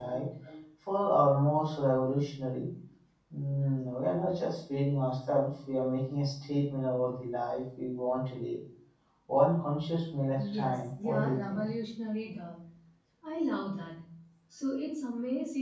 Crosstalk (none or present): present